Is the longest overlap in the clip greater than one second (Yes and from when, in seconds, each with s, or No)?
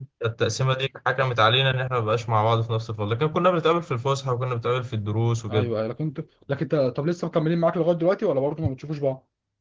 No